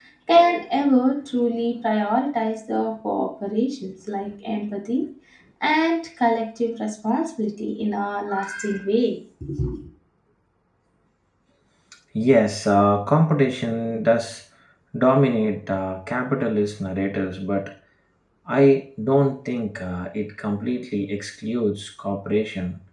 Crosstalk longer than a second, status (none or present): none